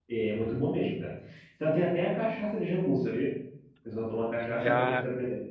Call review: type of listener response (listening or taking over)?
taking over